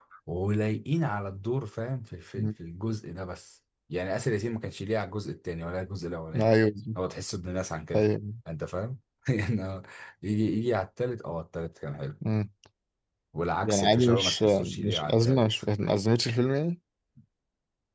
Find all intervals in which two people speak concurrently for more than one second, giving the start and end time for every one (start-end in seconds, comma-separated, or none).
13.6-15.6